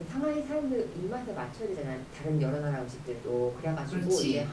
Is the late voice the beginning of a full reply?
No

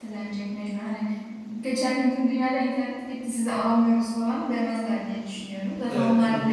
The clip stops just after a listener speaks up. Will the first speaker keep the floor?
No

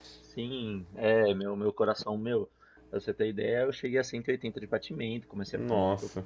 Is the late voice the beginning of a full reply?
No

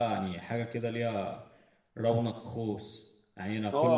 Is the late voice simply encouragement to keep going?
No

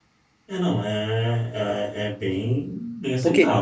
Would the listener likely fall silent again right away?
No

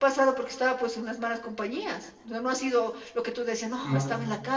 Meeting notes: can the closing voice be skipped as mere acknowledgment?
Yes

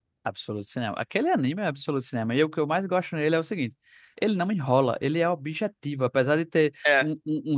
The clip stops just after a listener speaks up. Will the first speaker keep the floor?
Yes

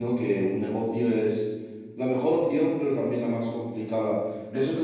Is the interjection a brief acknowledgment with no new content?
Yes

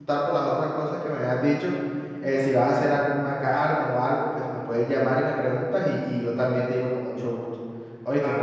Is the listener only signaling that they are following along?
No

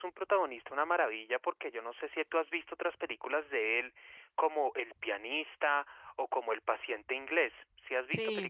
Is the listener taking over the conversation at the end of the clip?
Yes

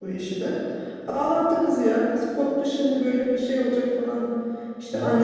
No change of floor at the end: Yes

